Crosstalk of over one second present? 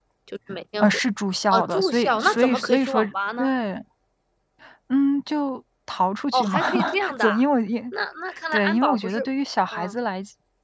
Yes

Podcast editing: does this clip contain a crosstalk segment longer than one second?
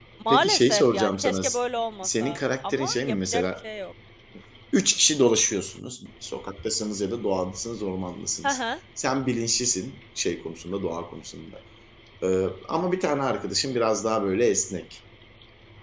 Yes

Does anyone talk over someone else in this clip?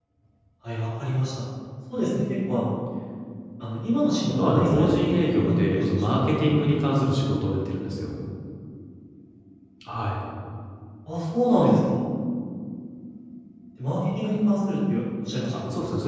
Yes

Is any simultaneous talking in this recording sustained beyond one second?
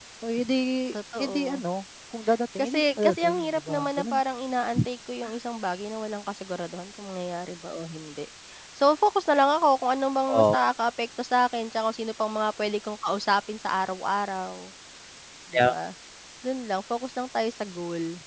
Yes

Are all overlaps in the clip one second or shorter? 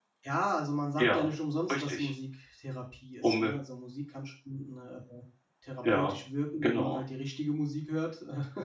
Yes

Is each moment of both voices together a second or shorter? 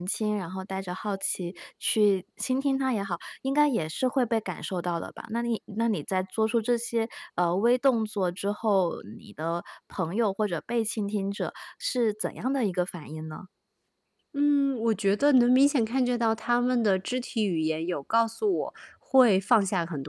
Yes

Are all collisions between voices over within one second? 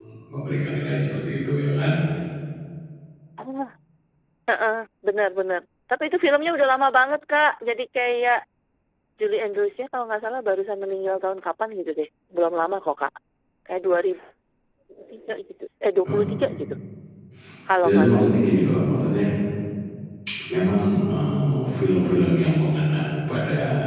Yes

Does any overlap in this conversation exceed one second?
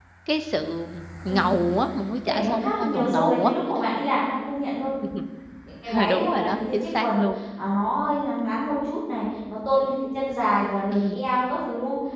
Yes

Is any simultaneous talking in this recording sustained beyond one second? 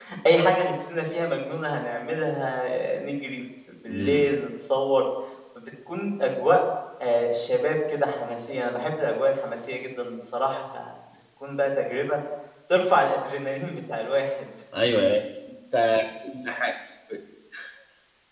No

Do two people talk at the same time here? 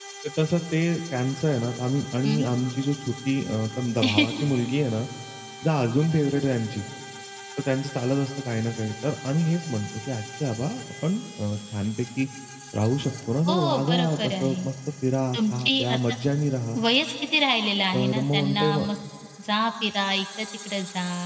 Yes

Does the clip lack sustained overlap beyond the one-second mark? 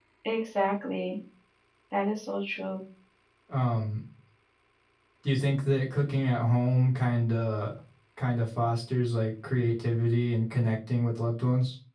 Yes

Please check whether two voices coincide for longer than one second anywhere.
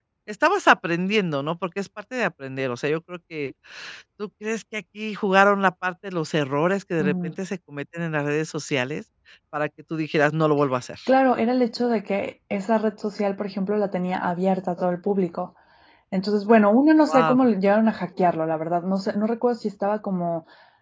No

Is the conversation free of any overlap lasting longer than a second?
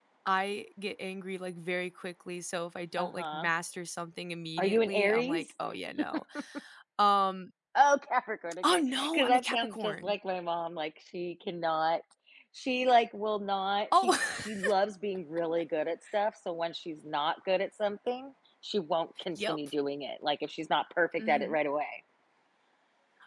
No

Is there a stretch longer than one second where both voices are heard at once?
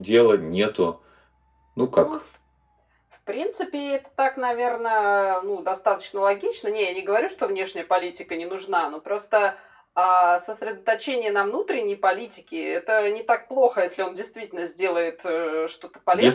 No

